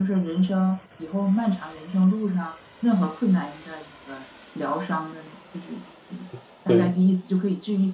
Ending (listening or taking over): listening